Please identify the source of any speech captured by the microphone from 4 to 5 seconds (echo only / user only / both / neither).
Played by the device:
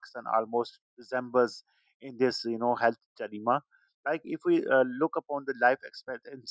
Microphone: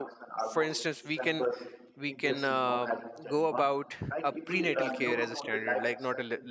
both